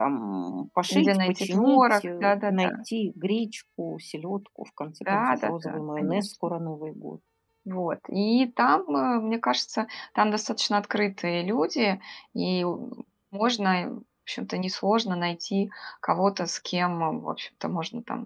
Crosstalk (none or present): present